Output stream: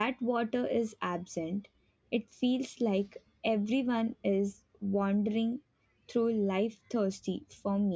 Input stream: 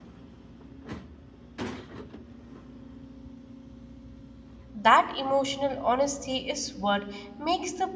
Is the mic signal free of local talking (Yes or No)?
No